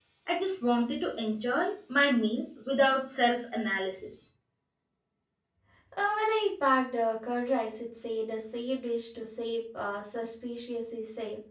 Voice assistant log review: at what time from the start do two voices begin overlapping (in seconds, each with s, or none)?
none